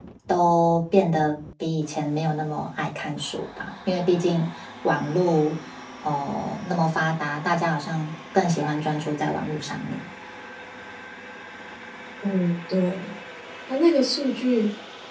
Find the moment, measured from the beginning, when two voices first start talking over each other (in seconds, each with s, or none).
none